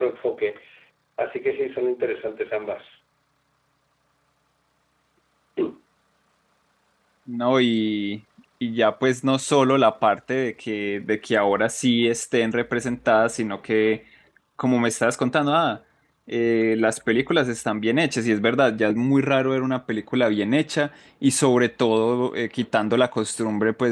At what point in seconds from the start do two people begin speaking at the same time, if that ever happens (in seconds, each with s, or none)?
none